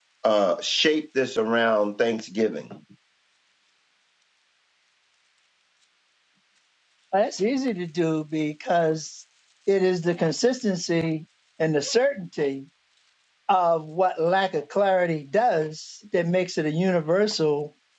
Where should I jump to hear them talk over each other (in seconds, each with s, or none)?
none